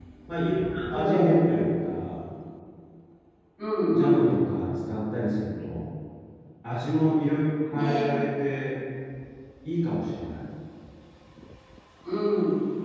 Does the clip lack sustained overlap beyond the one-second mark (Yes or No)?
Yes